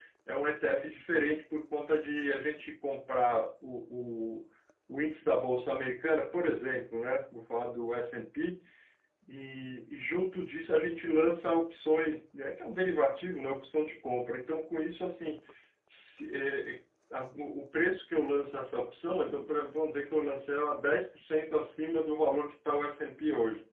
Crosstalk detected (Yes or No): No